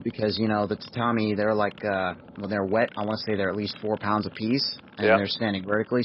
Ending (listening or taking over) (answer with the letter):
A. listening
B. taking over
A